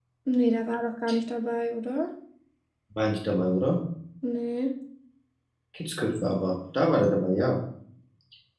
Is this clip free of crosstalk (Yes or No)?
Yes